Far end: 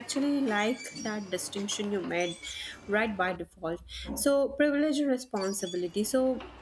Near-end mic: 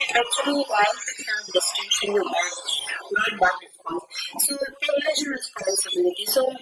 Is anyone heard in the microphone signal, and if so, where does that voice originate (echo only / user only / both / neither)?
echo only